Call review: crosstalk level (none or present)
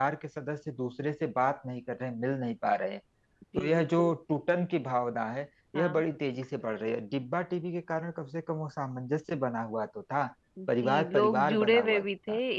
present